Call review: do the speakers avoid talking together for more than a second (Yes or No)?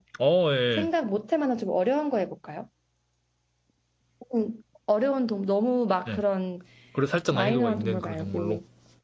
No